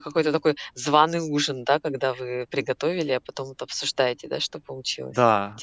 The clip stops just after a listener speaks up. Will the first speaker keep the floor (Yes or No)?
No